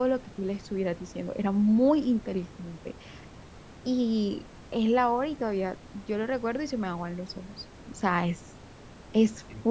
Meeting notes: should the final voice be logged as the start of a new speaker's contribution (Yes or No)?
Yes